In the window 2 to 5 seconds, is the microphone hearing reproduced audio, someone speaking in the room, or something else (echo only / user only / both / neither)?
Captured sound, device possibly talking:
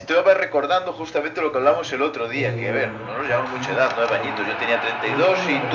both